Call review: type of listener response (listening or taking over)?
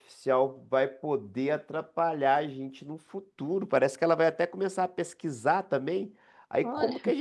listening